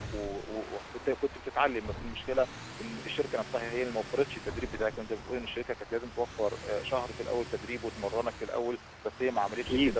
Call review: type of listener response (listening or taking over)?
listening